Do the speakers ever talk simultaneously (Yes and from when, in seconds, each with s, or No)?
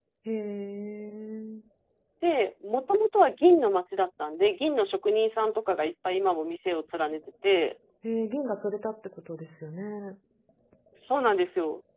No